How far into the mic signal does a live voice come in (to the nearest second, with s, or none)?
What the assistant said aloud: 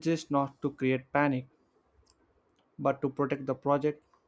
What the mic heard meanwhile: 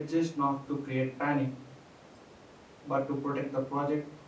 none